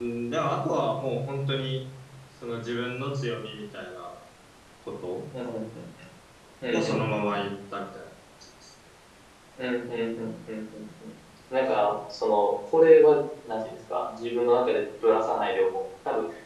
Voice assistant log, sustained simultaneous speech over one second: none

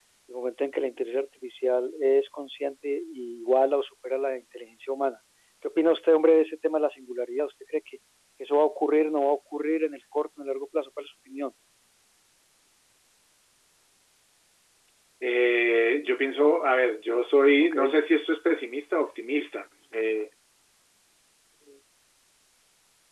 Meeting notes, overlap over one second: none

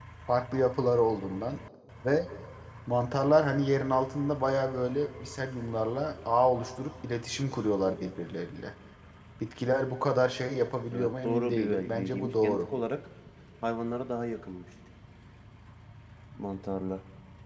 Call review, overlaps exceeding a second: present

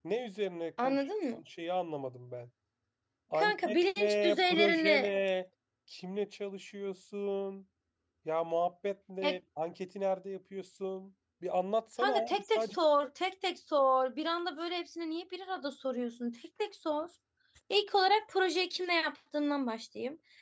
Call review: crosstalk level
present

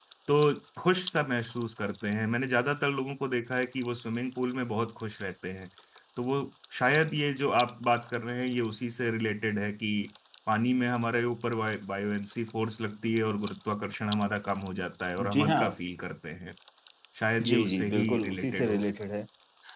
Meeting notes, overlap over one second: present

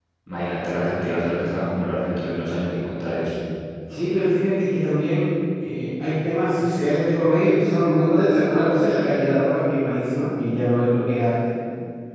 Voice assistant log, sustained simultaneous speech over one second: none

